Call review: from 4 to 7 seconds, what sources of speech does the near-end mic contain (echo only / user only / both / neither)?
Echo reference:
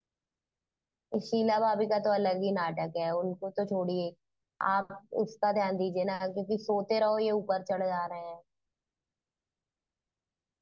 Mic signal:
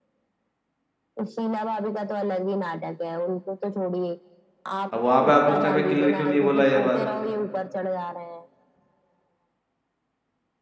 both